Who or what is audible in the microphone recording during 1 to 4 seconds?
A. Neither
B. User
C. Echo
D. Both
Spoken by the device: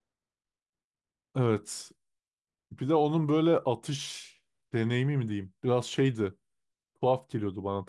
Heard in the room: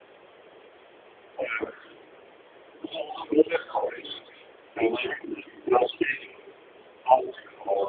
C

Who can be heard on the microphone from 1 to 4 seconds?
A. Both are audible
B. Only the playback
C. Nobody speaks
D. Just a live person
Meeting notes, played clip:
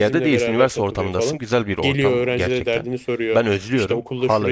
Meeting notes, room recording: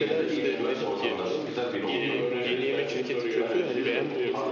A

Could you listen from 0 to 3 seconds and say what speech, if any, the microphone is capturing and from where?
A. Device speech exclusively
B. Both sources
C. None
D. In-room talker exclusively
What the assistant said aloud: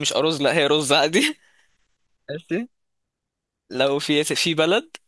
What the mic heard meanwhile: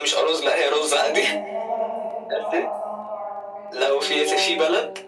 B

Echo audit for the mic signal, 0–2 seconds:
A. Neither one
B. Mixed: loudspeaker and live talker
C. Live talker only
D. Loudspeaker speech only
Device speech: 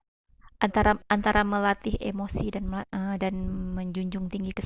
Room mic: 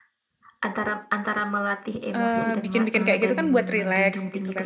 D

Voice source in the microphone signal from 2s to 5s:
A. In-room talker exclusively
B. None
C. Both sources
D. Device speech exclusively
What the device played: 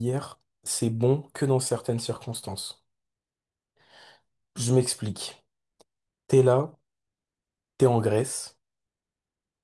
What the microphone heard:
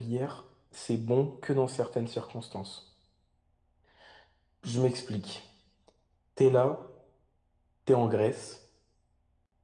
D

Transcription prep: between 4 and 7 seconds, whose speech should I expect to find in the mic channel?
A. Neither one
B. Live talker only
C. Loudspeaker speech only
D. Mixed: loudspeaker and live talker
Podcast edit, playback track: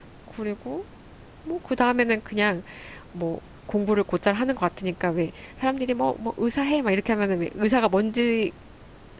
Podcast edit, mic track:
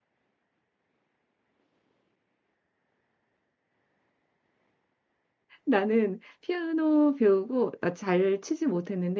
B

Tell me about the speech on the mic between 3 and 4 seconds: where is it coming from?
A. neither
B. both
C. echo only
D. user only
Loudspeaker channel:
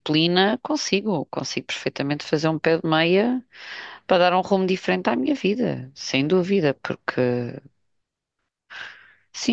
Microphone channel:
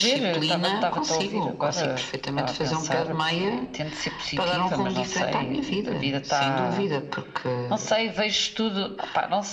B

